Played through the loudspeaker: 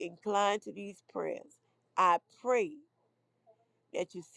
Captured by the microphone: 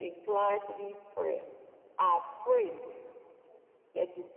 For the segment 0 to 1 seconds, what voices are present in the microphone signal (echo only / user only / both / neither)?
echo only